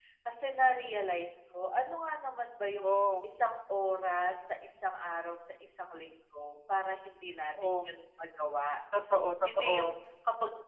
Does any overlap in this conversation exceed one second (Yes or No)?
No